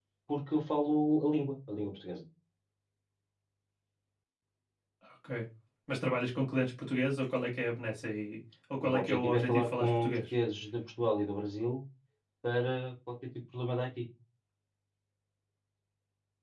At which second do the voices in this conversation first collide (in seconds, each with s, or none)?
8.8 s